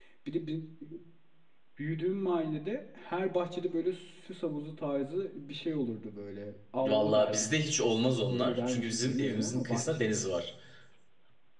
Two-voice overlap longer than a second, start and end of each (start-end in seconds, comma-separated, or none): 6.8-10.0